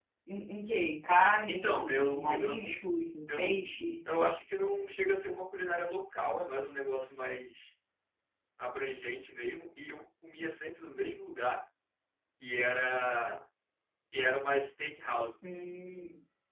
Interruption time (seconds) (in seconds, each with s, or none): 1.5 s